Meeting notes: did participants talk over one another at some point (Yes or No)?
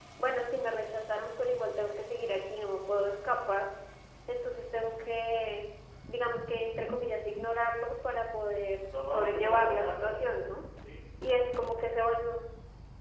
Yes